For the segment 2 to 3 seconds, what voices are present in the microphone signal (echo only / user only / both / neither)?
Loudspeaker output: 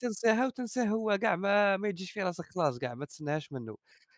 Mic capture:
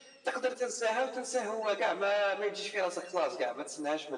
echo only